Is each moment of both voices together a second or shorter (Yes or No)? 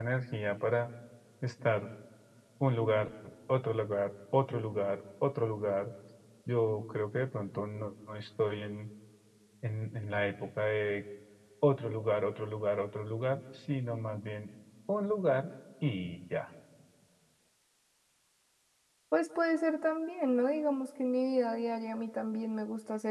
Yes